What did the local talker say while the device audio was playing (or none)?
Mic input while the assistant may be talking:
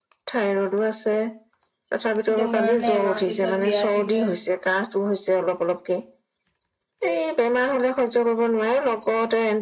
দুমাহ নে এমাহ পিছত বিয়া ঠিক হৈ আছিলে